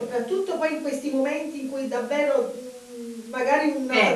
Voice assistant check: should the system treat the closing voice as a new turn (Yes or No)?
No